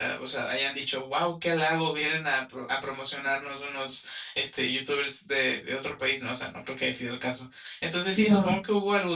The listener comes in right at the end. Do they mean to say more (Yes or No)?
No